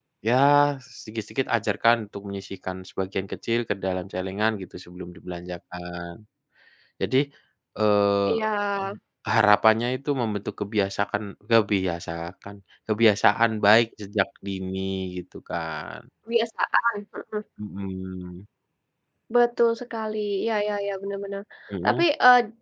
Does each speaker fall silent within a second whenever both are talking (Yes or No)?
Yes